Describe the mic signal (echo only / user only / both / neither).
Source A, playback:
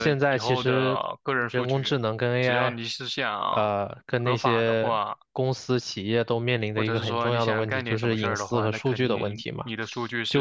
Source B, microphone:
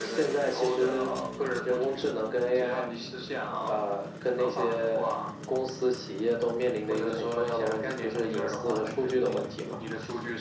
echo only